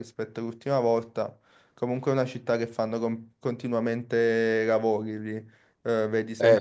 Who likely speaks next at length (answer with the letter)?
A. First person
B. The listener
A